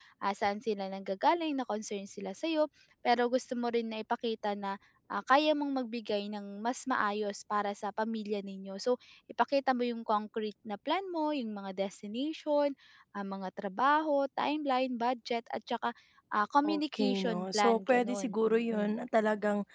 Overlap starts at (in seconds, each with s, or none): 16.6 s